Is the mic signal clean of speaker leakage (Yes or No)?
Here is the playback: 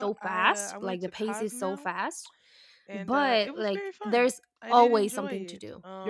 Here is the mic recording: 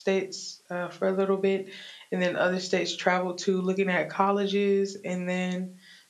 Yes